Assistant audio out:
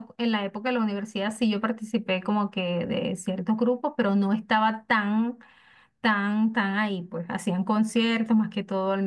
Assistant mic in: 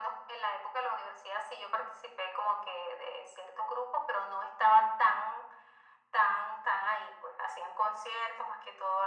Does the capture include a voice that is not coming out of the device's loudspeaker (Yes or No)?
No